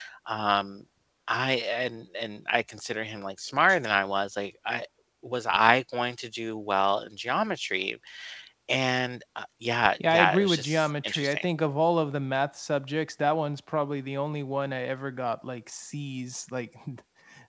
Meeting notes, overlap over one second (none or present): present